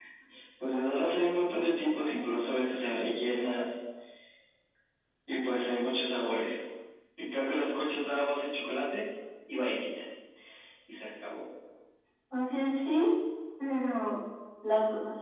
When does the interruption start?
none

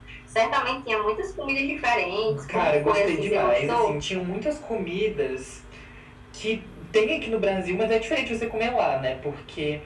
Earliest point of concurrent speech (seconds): 2.5 s

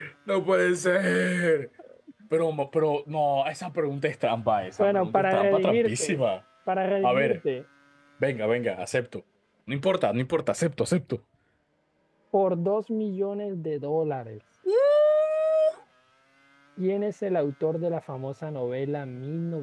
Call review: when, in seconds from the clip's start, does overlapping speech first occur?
4.8 s

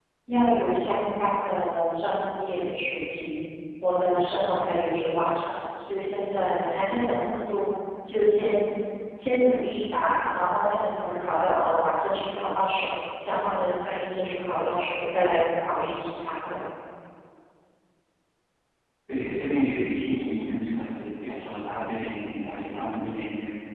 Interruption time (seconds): none

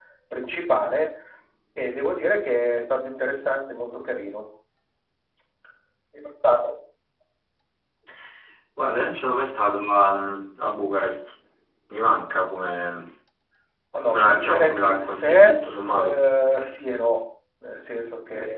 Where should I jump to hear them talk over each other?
14.0 s

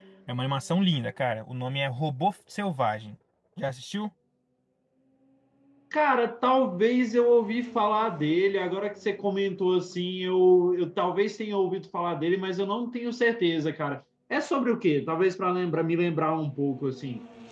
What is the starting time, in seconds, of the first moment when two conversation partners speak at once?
none

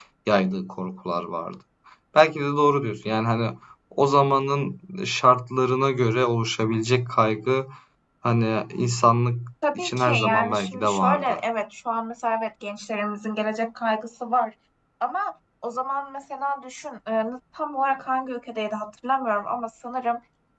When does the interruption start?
9.6 s

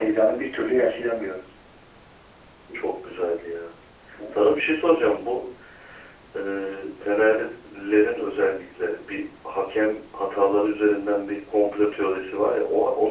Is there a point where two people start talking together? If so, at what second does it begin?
none

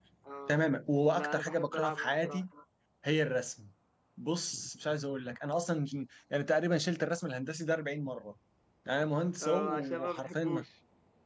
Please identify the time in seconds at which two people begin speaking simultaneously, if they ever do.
1.1 s

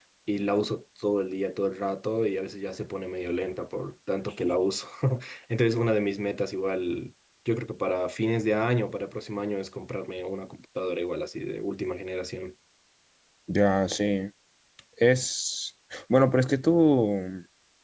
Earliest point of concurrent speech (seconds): none

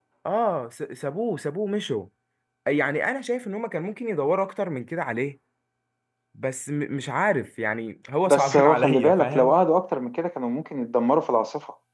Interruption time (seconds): 8.3 s

